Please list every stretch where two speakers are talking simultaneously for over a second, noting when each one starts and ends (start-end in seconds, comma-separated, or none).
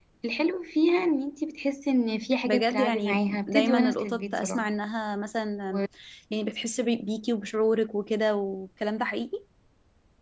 2.4-4.6